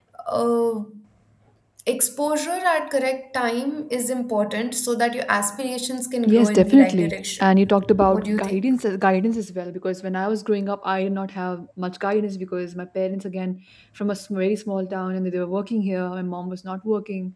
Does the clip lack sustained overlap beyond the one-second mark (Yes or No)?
No